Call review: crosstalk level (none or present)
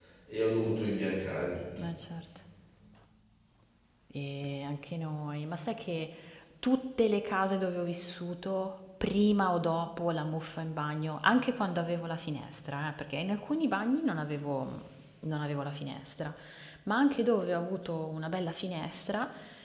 none